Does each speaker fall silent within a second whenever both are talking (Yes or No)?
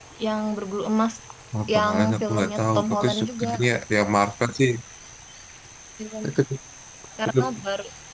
No